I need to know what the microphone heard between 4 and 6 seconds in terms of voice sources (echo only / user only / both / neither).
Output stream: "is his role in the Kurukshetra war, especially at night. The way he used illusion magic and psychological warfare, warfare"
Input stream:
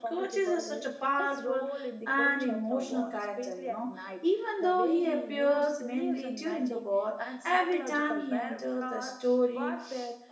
both